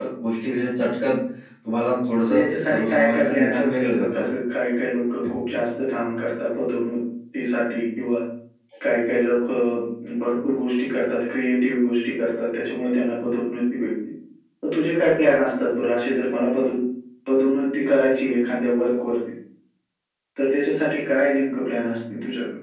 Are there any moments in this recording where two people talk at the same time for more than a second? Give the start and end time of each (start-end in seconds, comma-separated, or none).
2.3-4.2